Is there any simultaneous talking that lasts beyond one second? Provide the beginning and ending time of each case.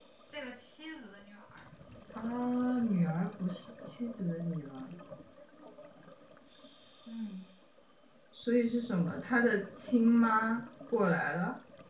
none

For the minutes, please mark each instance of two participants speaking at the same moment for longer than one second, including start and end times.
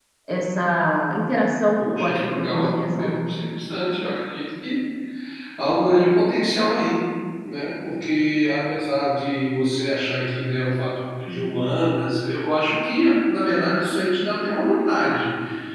1.8-3.3

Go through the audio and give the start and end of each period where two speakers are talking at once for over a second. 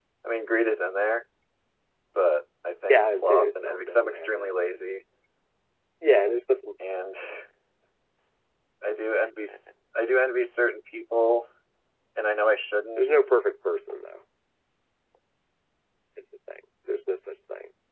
2.9-4.5

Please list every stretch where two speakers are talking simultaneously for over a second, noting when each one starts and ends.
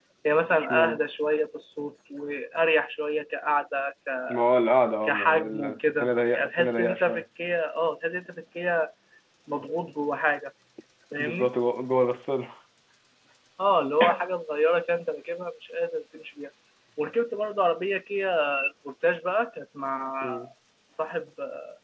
5.0-7.2

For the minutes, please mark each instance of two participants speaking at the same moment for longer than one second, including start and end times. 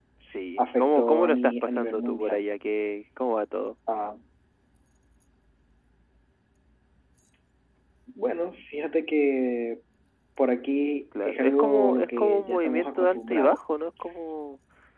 0.6-2.4, 11.2-13.6

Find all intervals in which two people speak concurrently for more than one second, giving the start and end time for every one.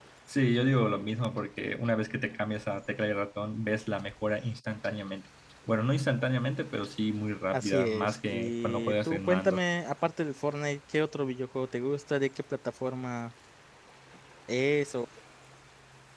7.5-9.6

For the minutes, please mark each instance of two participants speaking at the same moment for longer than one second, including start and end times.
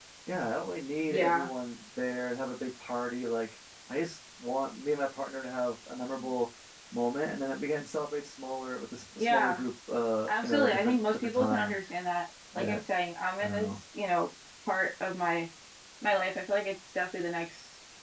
10.3-11.7

